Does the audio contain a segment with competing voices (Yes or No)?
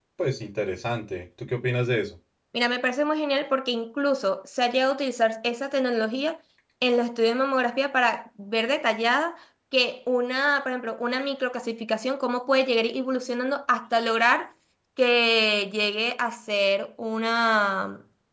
No